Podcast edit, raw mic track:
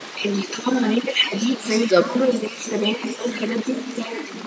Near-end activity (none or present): present